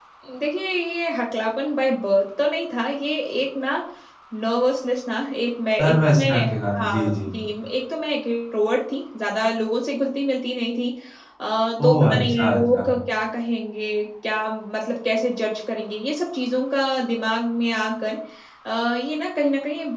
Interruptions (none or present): present